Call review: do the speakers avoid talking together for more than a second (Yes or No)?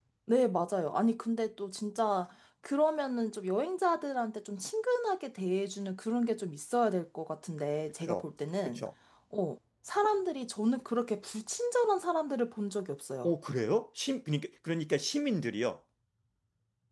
Yes